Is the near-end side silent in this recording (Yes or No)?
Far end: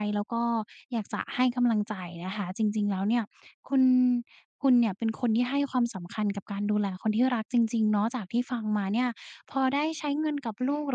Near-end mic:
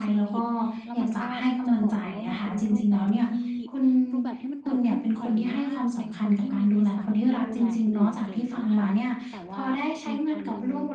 No